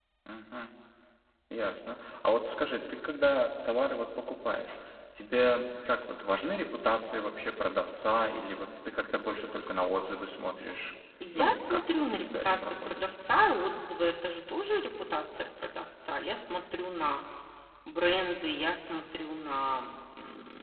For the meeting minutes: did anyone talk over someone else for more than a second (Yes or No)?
Yes